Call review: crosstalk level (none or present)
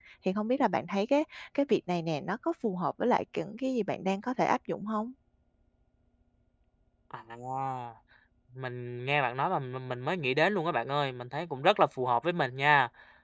none